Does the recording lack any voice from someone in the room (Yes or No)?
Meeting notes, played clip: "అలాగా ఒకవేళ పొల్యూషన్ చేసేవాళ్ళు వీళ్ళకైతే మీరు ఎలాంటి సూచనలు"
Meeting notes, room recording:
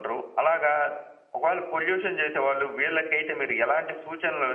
Yes